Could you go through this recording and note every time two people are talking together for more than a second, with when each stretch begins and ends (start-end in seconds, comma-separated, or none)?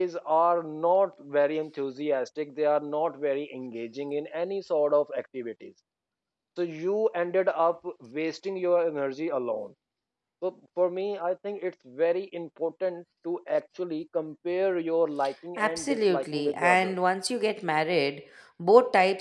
15.6-16.9